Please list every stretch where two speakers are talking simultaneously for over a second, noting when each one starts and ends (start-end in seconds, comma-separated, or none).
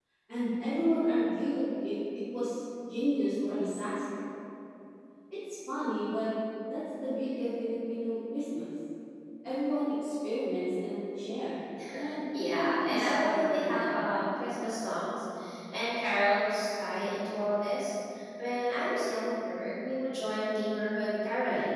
12.4-14.0